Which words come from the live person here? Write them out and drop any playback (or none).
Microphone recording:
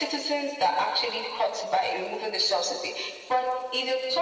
none